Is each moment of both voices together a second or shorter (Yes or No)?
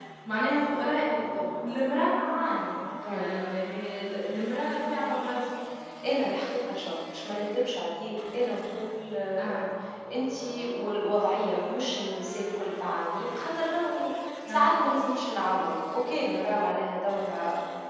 Yes